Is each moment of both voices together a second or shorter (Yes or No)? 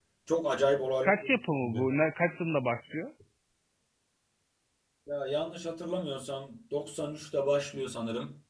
Yes